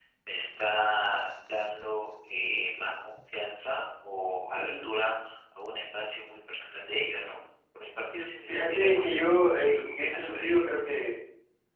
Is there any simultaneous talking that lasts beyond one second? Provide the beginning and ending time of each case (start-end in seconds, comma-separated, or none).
8.5-10.7